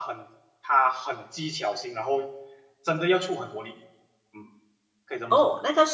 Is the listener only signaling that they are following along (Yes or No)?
No